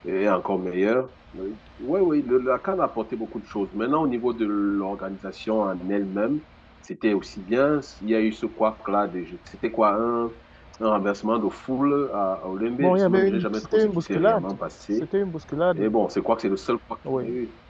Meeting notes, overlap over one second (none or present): present